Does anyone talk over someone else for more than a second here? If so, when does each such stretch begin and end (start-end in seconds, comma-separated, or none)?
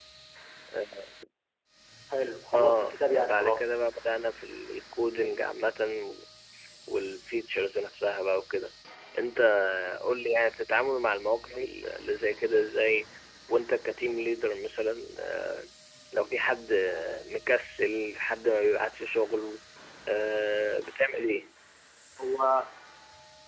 2.5-3.8